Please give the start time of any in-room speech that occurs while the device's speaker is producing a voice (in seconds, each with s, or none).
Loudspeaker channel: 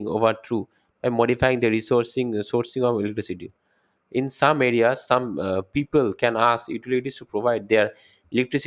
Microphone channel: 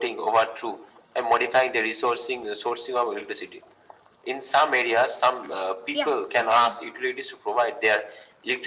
5.4 s